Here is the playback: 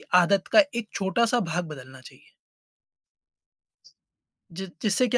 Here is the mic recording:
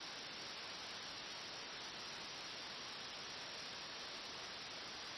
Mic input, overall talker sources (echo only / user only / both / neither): neither